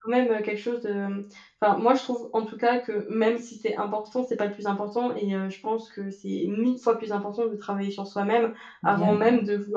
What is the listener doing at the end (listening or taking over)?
listening